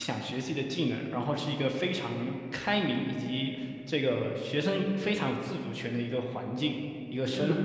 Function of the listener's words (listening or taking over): taking over